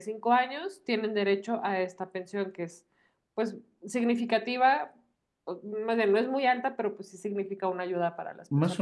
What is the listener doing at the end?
taking over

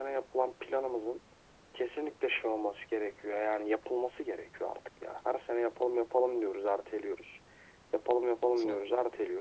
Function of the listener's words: listening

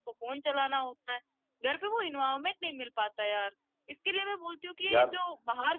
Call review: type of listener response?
listening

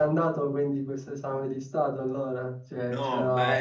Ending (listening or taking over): taking over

